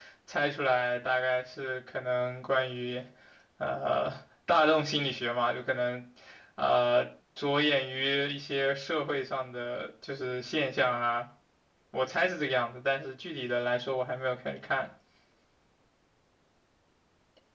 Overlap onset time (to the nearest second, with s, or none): none